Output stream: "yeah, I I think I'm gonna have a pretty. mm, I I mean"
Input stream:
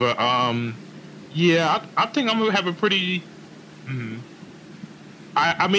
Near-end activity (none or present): none